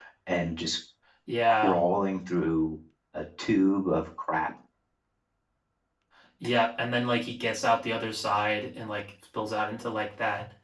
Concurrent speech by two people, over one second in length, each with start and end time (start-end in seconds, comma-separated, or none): none